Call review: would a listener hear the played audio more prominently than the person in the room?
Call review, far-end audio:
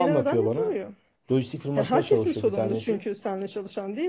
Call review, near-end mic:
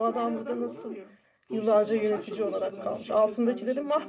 No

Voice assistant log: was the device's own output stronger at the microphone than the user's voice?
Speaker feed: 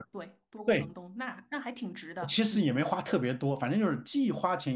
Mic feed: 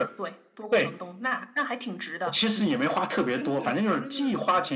Yes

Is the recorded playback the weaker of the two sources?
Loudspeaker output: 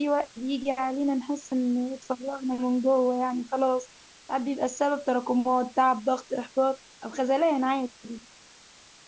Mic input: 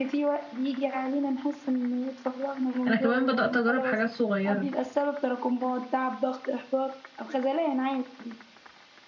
Yes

